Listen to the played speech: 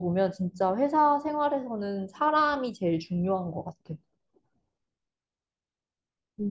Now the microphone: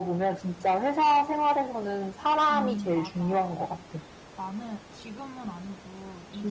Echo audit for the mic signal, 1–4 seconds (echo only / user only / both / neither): both